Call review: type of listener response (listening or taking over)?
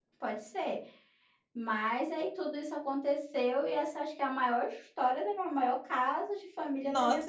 taking over